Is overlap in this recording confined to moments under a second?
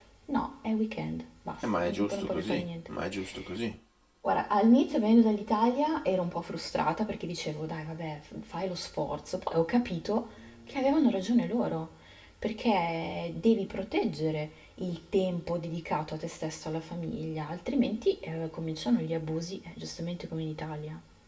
No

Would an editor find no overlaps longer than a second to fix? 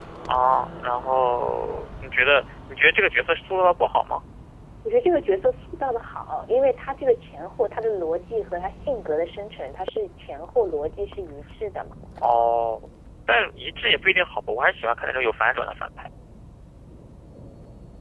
Yes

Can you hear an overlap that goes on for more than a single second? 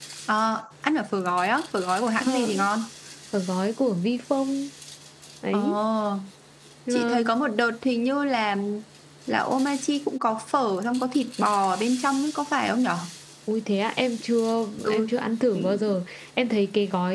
No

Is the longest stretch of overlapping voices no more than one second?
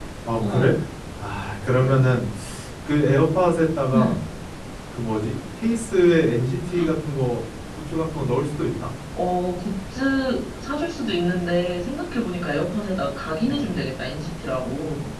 Yes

